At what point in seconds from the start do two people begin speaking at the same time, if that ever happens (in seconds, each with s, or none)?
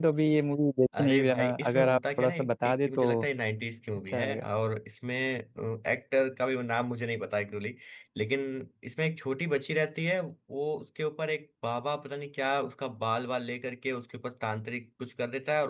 1.0 s